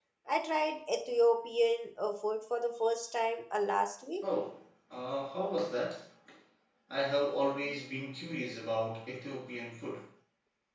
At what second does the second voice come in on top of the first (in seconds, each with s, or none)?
none